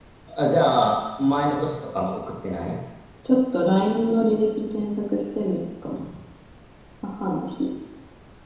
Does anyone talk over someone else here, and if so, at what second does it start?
none

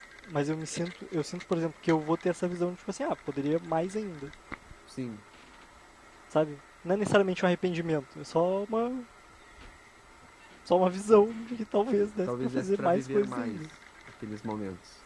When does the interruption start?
12.3 s

